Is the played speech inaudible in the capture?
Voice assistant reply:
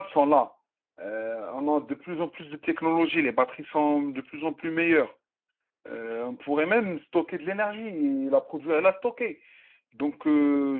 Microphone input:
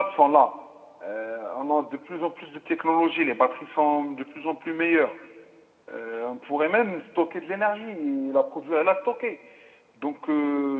No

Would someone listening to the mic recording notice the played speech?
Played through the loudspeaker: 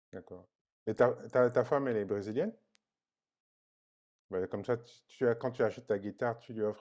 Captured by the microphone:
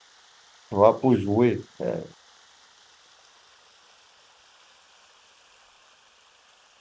No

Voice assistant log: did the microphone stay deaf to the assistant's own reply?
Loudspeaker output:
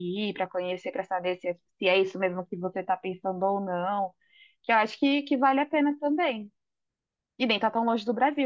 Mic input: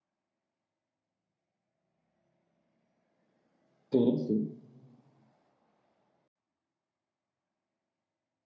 Yes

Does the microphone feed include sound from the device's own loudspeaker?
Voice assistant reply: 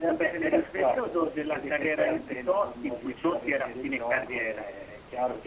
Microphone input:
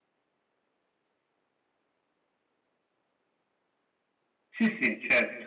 No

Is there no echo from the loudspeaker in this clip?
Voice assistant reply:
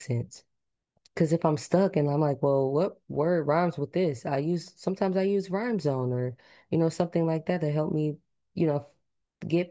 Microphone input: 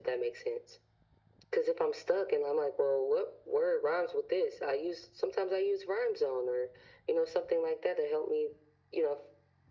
No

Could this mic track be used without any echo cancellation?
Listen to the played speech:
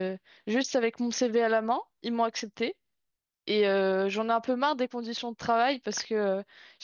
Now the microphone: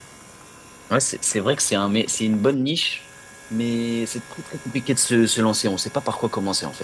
Yes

